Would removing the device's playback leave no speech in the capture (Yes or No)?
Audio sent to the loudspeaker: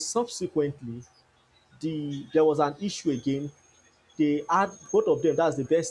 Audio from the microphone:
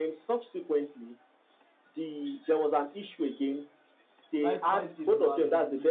No